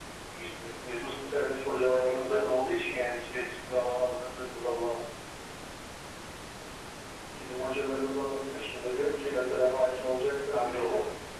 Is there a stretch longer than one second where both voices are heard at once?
No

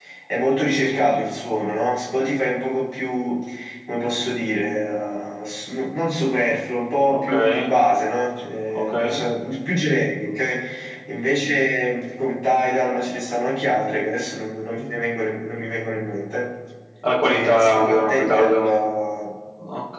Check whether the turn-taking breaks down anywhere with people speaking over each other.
Yes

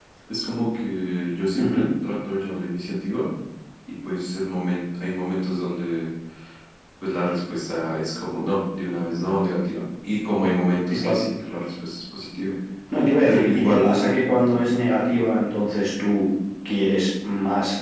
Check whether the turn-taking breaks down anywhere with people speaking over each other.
Yes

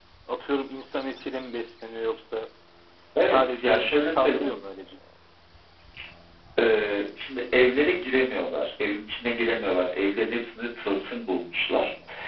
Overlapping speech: Yes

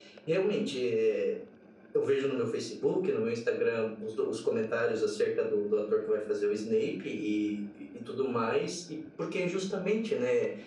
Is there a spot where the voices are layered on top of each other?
No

